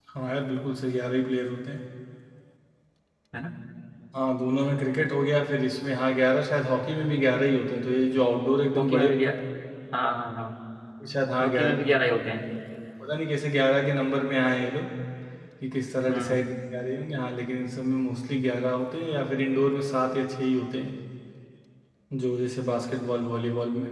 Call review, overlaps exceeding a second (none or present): none